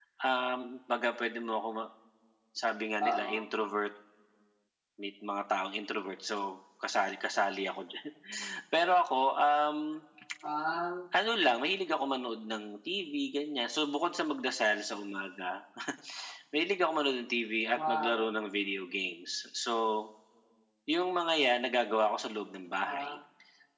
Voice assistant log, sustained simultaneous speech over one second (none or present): none